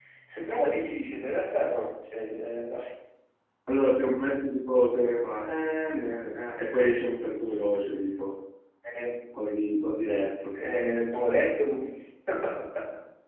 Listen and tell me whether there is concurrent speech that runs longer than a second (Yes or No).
No